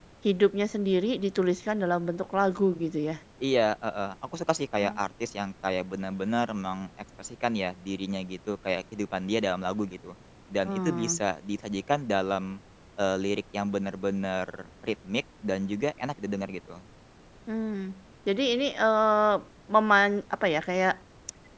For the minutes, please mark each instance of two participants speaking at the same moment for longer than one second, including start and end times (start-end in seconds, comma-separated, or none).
none